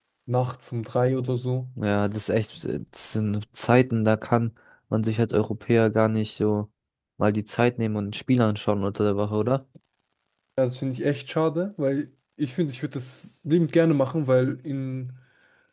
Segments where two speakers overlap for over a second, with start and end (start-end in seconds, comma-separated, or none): none